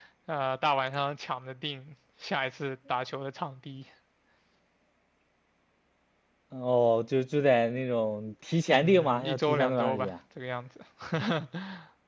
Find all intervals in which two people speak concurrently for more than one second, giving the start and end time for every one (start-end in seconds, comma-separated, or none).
8.7-10.1